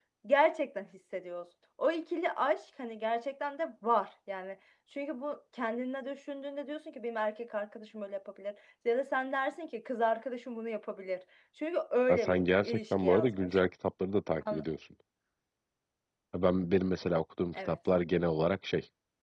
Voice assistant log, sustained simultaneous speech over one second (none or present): present